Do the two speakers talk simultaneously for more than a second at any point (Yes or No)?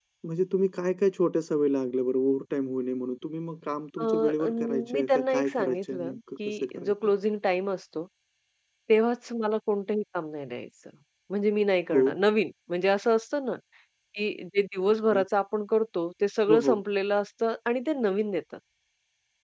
Yes